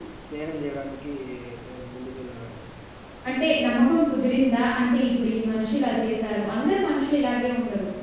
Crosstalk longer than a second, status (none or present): none